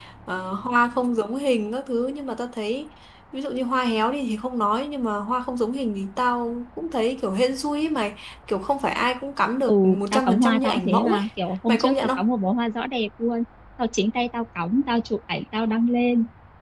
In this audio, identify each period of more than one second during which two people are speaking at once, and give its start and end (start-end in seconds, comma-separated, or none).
9.7-11.2